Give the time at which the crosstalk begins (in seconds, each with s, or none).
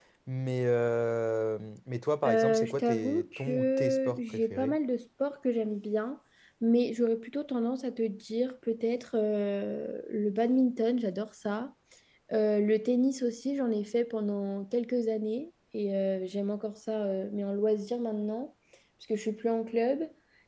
2.2 s